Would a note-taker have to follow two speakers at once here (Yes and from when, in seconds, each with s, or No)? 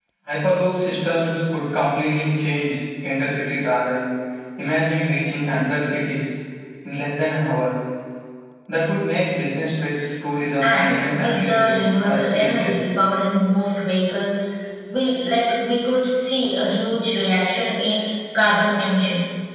Yes, from 10.6 s